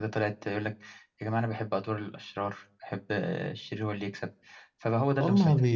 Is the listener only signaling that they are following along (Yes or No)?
No